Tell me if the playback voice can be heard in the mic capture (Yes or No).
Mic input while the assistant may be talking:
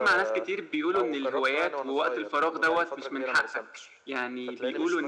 Yes